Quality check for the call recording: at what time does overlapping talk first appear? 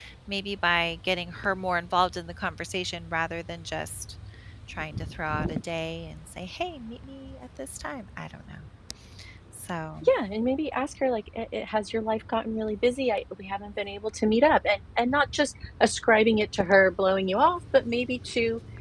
none

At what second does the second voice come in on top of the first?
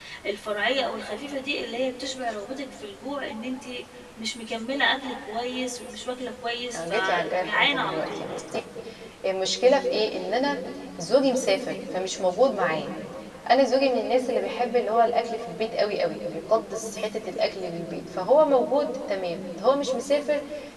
6.7 s

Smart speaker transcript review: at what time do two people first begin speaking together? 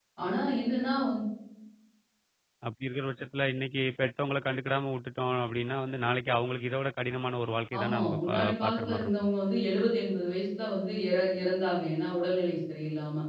7.7 s

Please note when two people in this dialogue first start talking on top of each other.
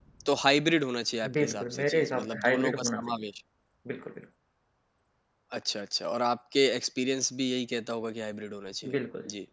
1.3 s

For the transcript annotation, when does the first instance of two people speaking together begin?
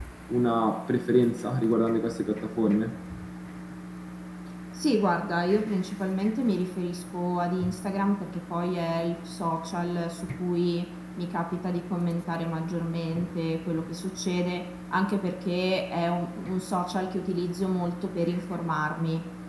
none

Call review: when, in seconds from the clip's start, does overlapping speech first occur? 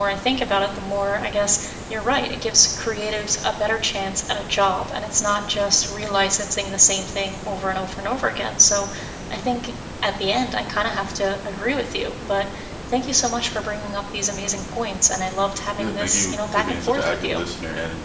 15.7 s

